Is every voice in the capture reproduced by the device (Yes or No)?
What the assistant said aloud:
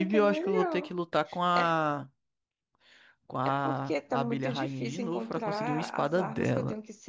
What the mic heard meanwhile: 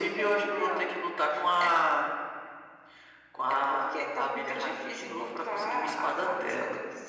Yes